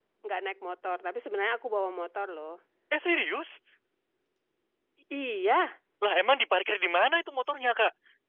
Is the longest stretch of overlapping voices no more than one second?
Yes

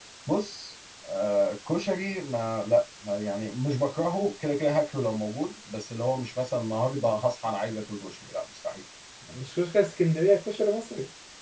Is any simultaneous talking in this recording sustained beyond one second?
No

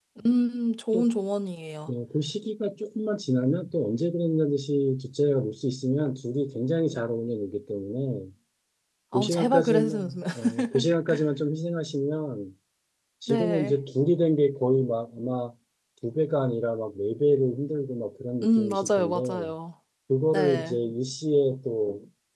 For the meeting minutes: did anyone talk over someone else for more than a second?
Yes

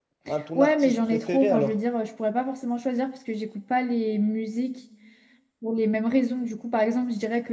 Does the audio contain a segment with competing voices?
Yes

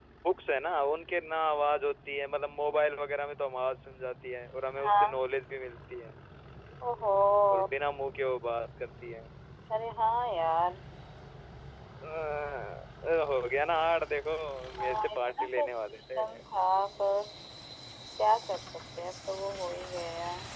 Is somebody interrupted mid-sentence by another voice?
Yes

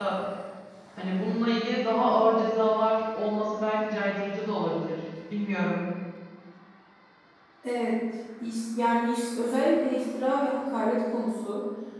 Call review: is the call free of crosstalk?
Yes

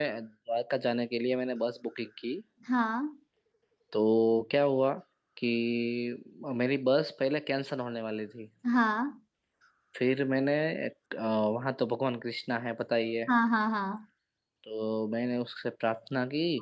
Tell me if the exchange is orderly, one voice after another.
Yes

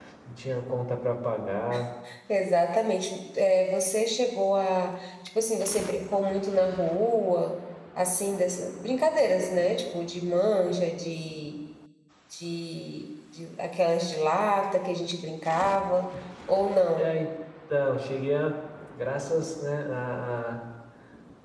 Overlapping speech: No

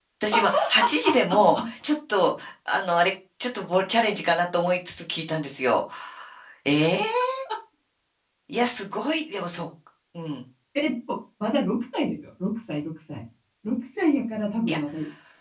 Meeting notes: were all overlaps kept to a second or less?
Yes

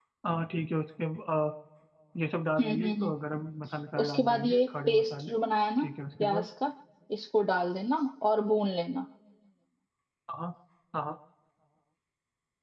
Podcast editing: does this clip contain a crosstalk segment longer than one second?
Yes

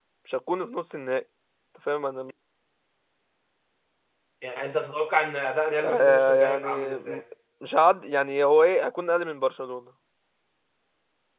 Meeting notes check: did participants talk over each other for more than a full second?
Yes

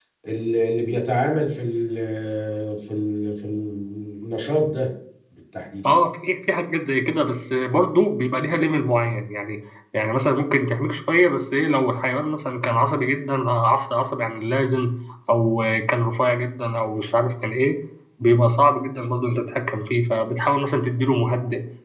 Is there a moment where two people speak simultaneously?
No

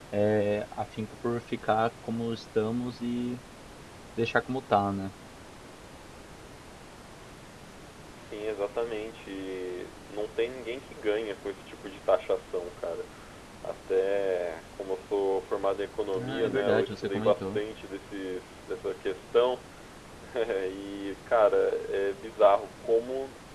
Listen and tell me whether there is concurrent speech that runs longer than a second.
Yes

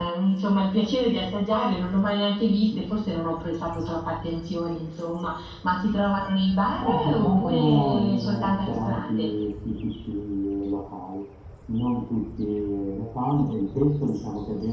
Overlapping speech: Yes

